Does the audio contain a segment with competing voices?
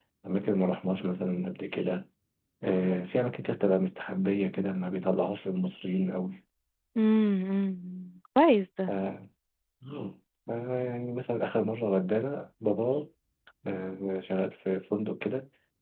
No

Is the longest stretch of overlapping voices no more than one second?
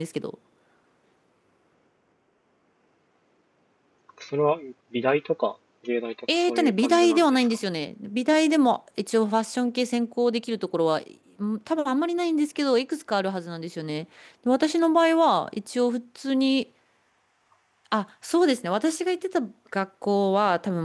No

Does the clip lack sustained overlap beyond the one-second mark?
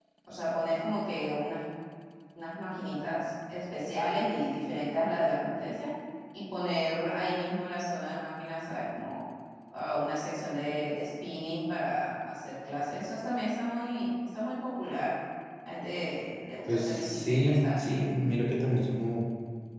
No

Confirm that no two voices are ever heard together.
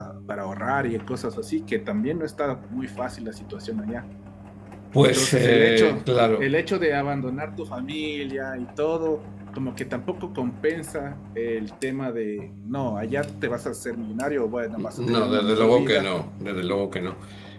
No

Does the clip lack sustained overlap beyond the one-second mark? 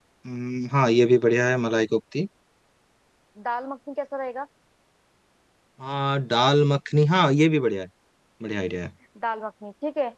Yes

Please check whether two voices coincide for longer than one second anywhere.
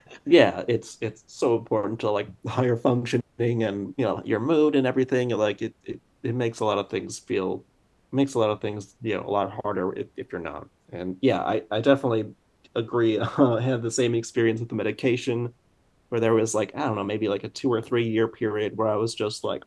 No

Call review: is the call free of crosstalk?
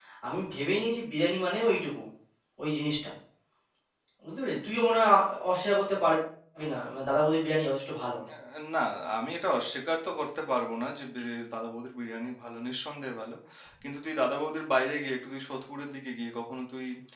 Yes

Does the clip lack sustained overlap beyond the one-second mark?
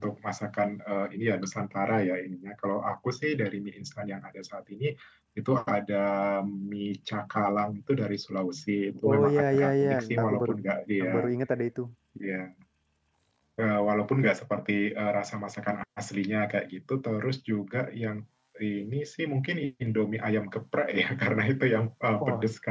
No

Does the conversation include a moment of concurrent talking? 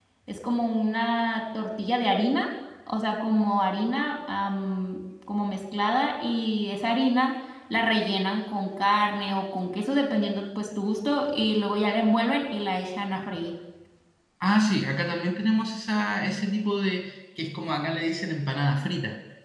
No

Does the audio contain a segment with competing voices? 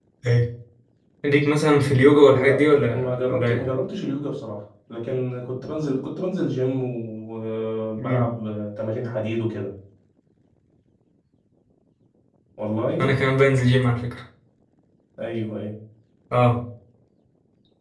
Yes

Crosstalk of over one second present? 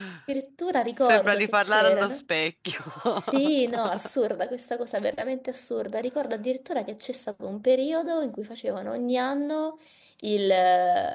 Yes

